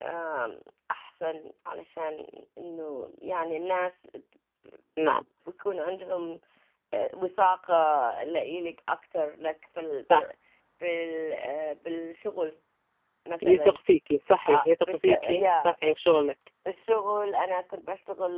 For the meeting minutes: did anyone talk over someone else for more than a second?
Yes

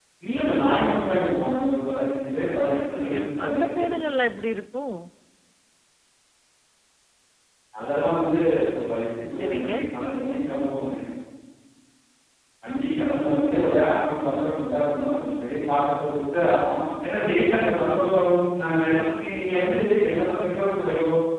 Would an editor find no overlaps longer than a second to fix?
No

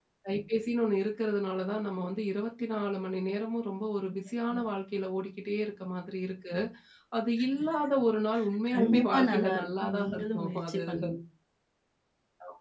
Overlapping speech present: Yes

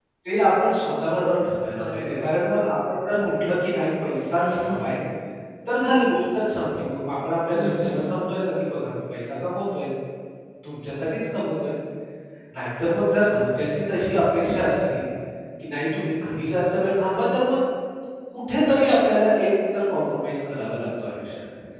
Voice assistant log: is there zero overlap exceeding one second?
Yes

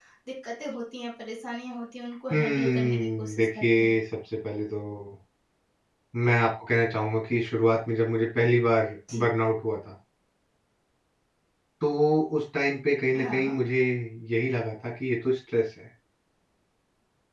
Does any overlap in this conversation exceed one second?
Yes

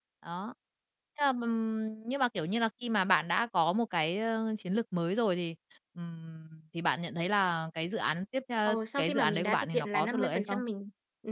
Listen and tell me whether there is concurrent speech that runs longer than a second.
Yes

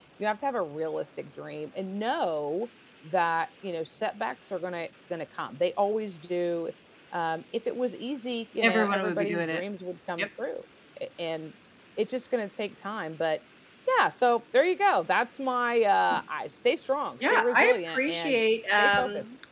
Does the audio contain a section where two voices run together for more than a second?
Yes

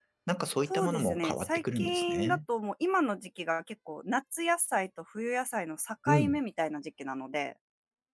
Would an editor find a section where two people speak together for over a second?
Yes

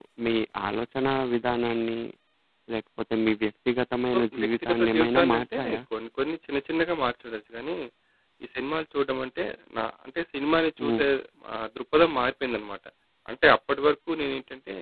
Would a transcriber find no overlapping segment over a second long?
No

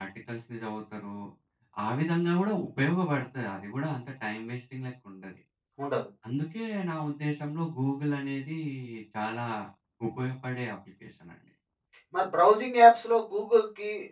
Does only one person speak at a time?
Yes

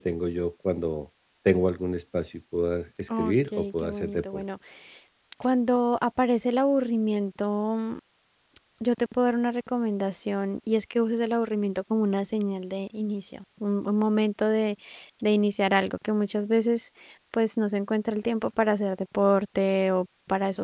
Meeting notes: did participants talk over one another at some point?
Yes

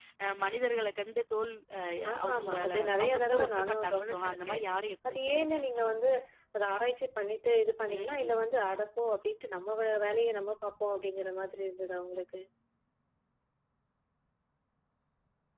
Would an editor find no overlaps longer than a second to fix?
No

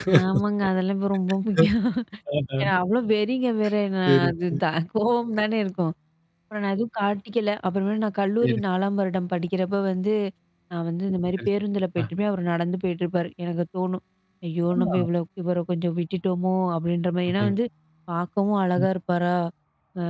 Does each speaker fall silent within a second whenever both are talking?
Yes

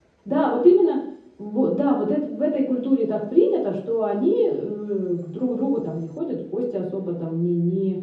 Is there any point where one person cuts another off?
No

